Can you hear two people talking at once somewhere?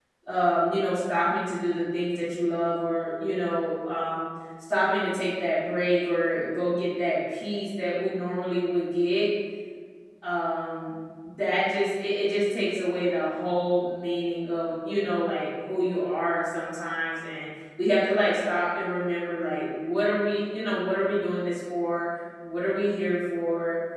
No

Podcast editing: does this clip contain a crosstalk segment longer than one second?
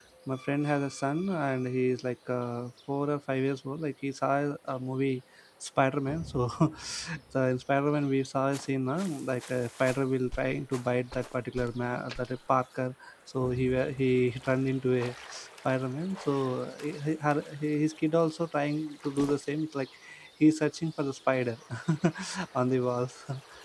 No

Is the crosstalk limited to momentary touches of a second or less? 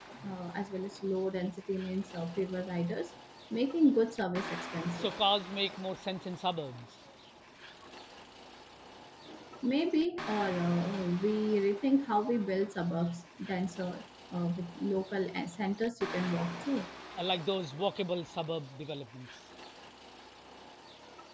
Yes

